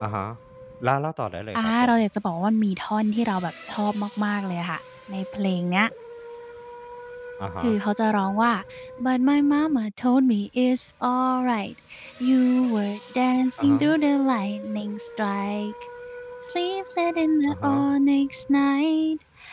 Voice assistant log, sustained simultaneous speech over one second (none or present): none